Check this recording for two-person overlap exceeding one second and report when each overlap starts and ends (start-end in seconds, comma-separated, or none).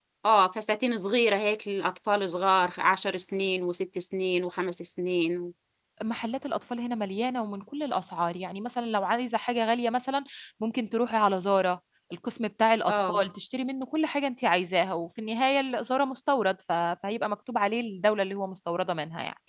none